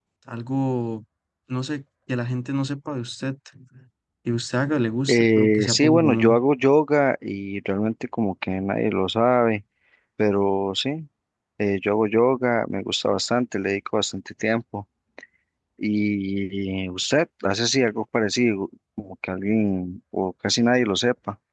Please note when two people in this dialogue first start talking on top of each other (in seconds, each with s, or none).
5.1 s